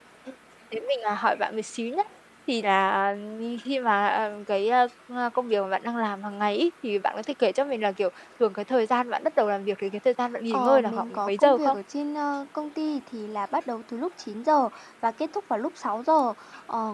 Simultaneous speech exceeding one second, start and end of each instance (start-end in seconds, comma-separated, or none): 10.5-11.8